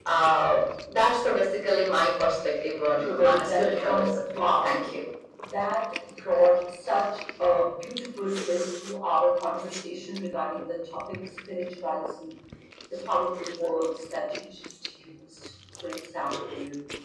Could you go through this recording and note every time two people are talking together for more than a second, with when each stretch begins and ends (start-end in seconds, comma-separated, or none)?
3.0-4.2